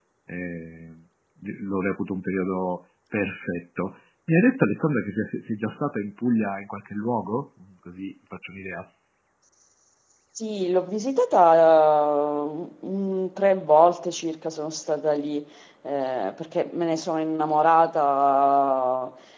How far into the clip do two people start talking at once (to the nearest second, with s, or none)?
none